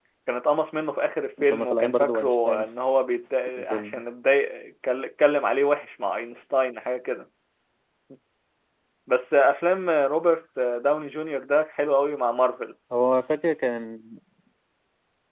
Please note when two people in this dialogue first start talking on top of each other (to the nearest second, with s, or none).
1 s